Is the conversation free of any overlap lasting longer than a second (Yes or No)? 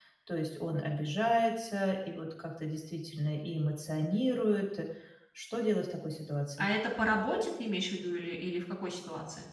Yes